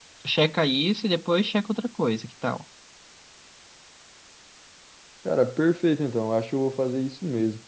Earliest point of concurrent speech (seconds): none

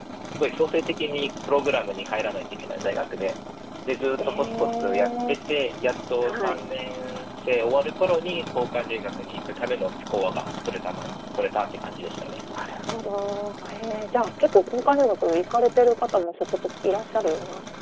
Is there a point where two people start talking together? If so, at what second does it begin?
4 s

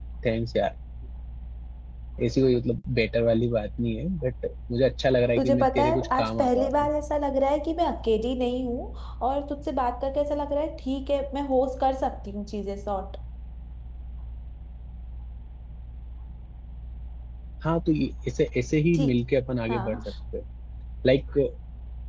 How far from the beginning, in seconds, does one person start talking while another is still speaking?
5 s

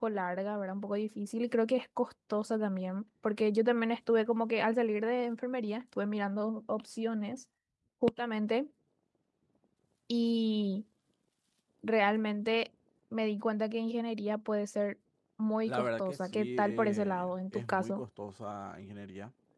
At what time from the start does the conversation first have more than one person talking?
16 s

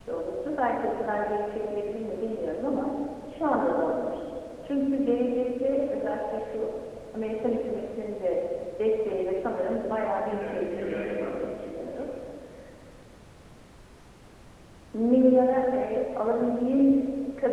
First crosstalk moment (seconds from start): 10 s

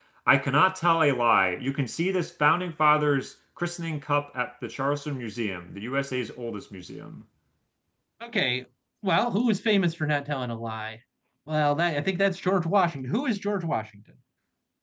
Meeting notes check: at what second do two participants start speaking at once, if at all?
none

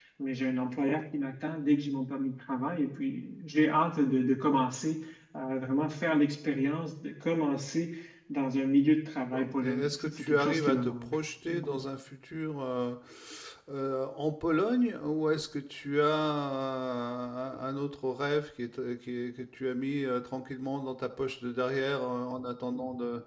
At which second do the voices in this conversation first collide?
9 s

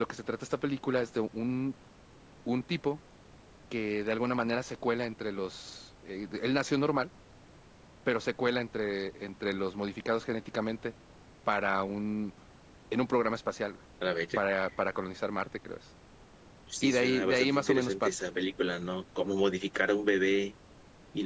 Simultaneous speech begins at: 17 s

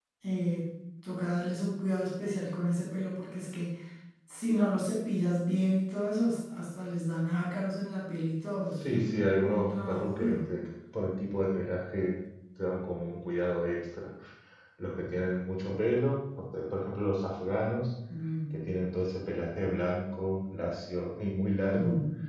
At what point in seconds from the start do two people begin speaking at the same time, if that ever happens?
9 s

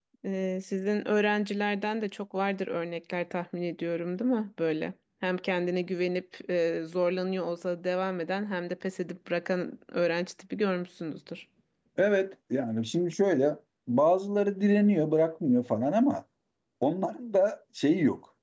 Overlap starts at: none

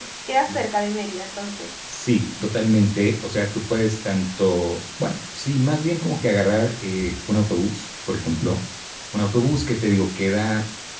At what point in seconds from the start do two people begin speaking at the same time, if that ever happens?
none

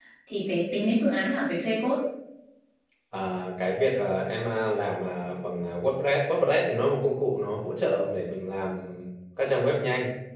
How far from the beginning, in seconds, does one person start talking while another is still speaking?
none

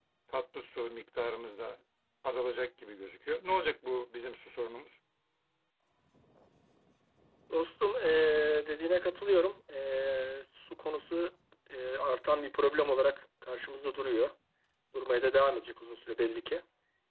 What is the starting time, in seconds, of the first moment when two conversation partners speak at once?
none

